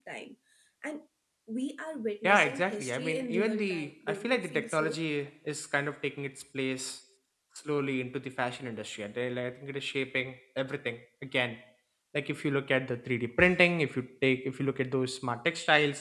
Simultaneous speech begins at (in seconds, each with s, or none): 2.2 s